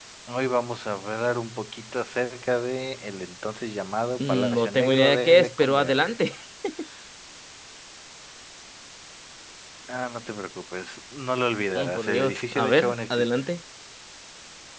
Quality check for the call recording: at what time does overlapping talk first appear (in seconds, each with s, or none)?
4.2 s